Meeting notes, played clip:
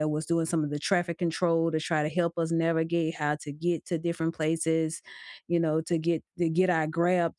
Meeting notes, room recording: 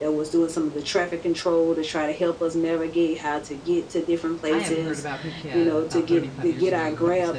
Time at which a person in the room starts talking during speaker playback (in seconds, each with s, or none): 4.5 s